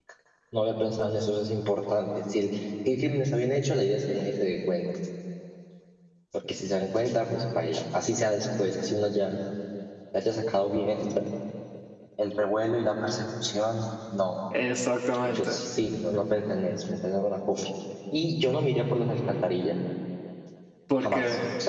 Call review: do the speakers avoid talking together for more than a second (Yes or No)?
Yes